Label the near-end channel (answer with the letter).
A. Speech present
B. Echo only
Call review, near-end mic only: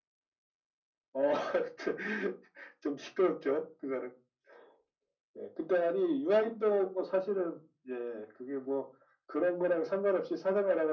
B